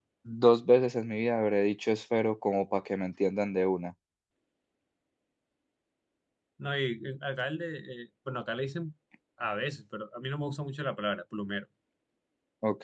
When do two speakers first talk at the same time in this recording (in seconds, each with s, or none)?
none